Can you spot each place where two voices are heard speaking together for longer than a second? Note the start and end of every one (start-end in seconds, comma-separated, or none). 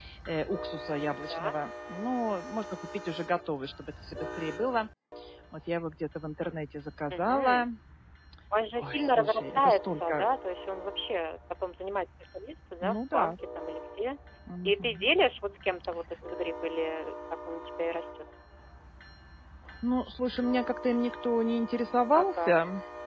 8.8-10.3